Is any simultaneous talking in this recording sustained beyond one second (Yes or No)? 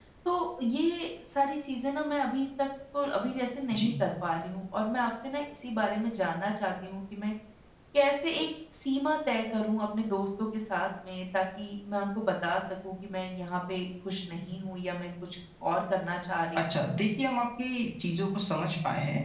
No